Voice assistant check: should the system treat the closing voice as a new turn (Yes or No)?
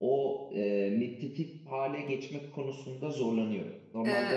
Yes